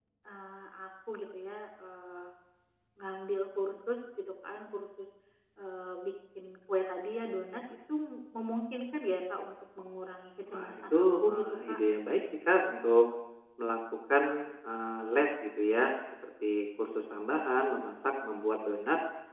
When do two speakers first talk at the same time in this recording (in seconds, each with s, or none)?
10.5 s